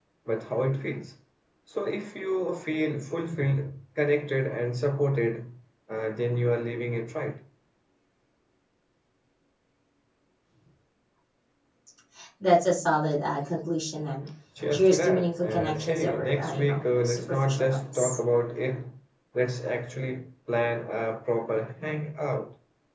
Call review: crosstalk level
present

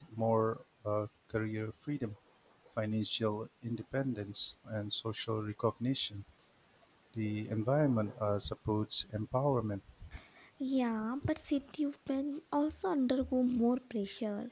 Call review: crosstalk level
none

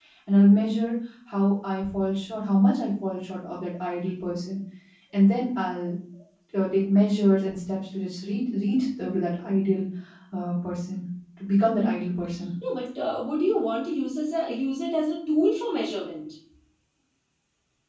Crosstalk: none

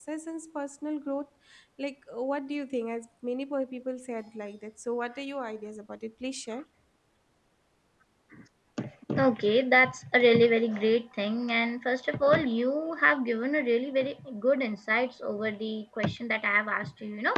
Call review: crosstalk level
none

